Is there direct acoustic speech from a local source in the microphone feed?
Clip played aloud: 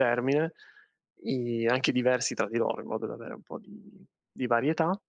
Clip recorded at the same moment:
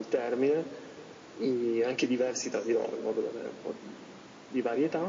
No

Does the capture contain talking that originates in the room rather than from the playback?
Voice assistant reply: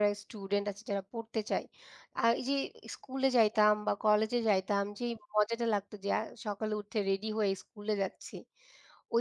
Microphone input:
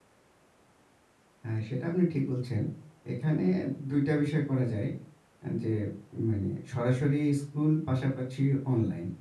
Yes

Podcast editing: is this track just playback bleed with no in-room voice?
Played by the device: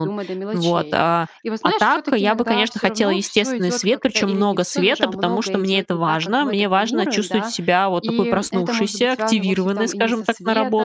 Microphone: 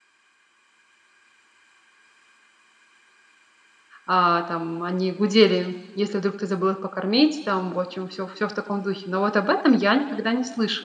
No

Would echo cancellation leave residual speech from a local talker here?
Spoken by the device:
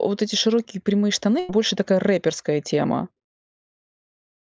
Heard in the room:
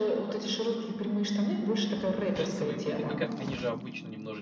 Yes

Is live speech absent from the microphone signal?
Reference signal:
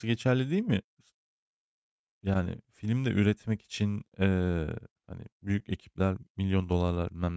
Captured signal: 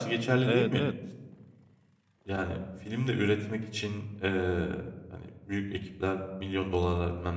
No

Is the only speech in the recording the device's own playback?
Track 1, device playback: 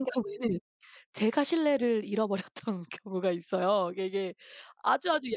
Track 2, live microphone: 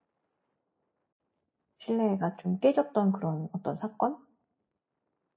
No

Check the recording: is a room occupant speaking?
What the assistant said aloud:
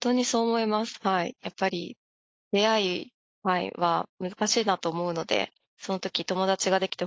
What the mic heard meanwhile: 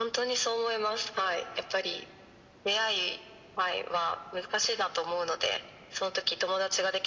No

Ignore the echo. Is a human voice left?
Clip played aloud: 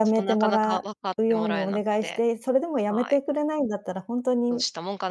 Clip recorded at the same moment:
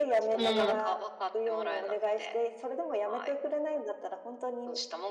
Yes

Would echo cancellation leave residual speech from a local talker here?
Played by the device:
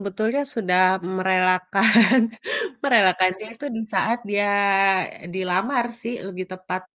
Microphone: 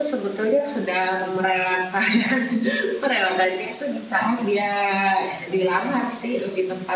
No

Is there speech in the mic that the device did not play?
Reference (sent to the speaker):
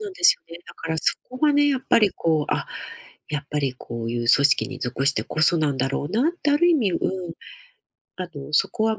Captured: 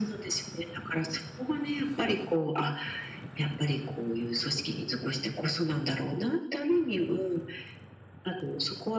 No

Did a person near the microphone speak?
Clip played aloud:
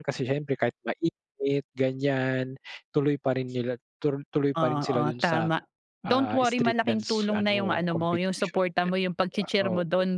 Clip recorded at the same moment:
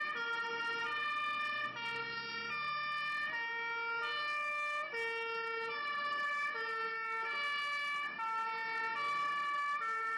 No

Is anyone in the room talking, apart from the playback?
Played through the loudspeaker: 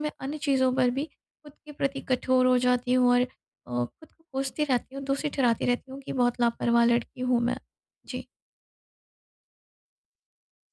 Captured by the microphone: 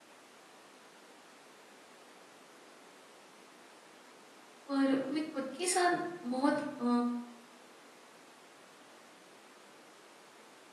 Yes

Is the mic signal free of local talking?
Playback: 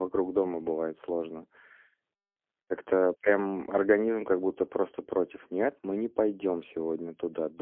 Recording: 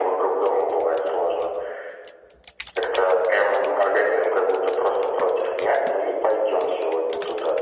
Yes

